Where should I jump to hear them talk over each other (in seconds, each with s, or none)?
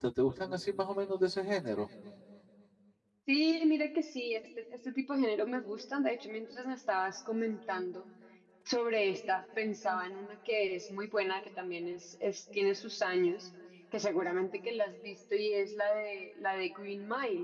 none